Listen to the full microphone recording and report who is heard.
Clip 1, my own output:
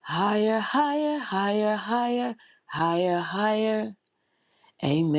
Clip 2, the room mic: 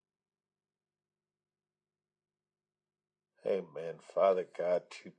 user only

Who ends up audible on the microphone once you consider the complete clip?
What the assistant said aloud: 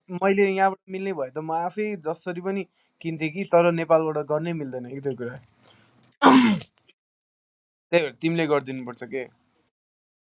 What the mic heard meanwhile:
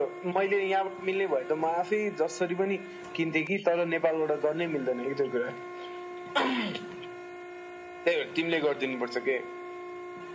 echo only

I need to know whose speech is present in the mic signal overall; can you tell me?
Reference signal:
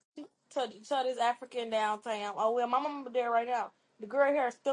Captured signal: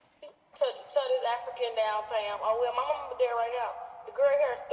echo only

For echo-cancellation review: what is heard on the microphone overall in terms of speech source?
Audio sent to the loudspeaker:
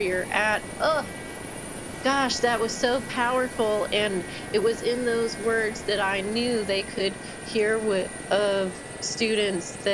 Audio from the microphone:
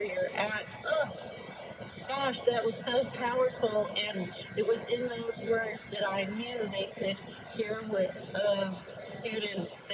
echo only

